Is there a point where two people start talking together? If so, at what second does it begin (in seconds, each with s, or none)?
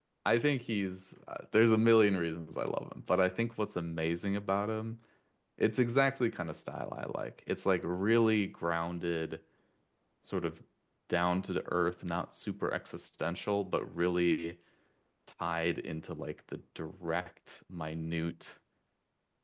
none